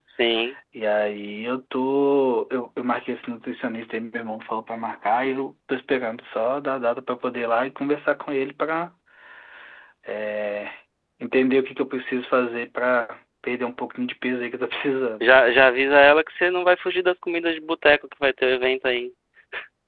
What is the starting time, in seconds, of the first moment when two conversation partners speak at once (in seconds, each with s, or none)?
none